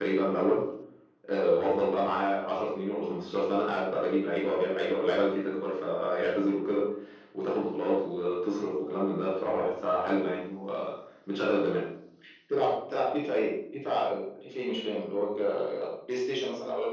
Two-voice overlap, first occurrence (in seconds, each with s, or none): none